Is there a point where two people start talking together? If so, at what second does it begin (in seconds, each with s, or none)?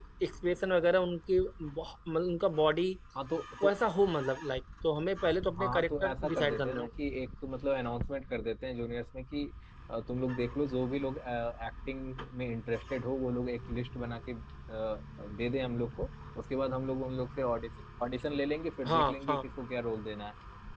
5.6 s